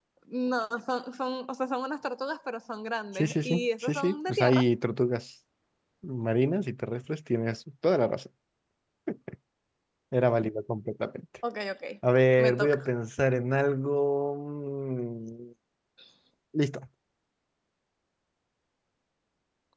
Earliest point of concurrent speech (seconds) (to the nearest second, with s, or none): 3 s